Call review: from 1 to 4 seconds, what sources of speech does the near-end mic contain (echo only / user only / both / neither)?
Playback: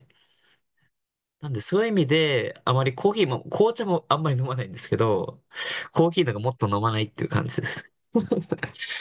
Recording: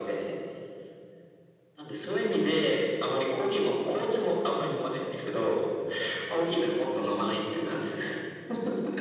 echo only